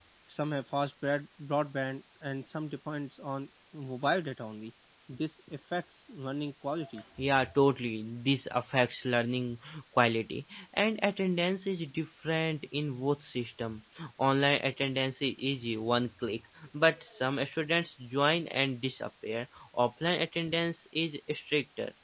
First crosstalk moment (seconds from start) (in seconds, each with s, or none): none